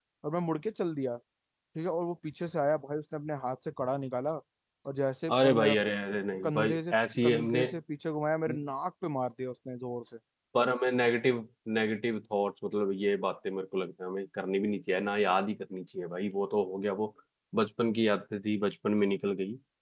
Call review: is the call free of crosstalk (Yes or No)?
No